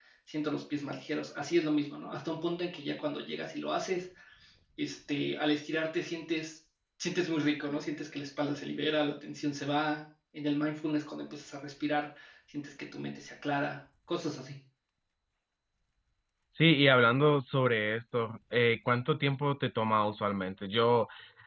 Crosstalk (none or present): none